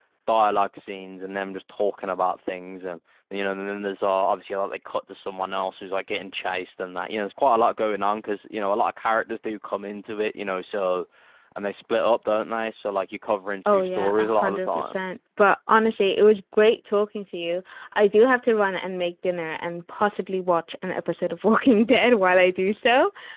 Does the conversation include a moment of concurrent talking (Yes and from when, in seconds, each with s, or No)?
Yes, from 13.7 s